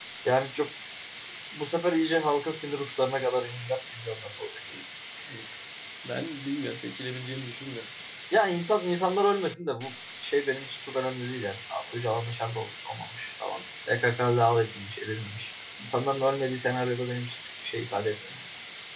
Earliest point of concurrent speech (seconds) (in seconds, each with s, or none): none